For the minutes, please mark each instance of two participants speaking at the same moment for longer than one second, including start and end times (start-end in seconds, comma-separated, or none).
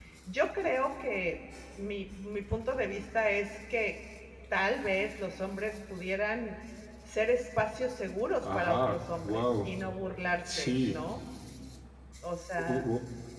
8.4-9.7